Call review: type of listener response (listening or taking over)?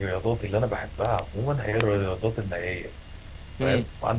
listening